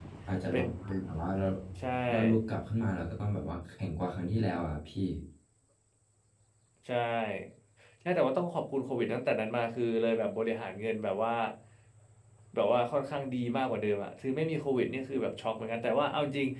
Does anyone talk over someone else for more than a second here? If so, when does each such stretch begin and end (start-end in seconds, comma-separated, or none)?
none